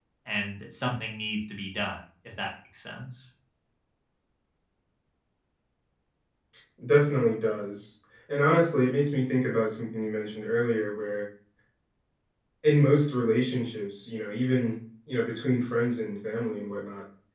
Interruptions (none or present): none